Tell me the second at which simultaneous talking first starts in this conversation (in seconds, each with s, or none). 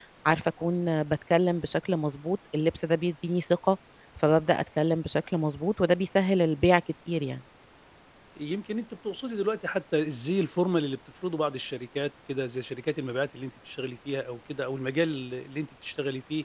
none